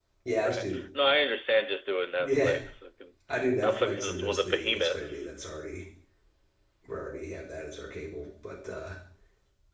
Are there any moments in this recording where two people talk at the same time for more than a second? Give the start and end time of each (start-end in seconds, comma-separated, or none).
3.6-5.3